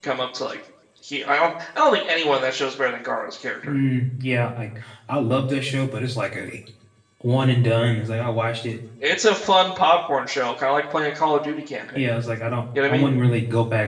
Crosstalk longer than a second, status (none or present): none